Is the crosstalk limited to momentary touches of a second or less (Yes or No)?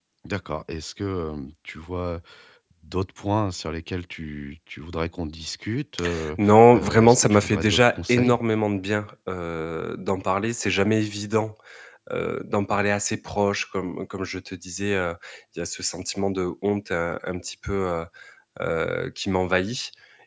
No